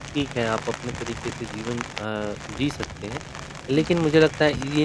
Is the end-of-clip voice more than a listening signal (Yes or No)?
No